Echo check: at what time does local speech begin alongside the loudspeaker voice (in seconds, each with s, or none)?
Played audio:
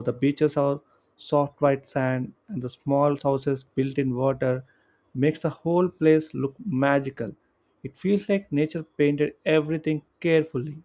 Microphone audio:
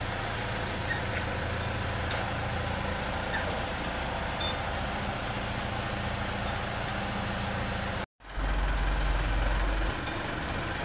none